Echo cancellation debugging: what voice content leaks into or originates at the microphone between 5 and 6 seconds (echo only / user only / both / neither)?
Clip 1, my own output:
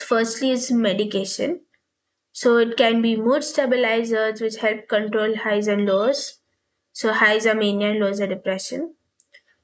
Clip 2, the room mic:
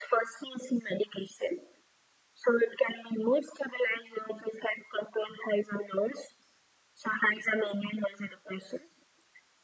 echo only